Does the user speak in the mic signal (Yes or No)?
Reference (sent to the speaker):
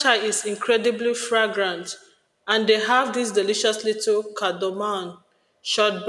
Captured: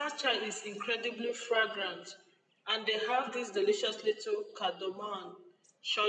No